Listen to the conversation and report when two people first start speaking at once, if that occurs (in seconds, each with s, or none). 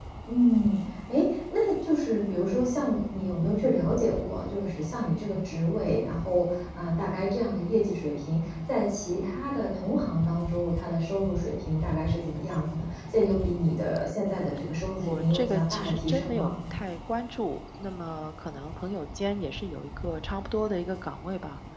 14.9 s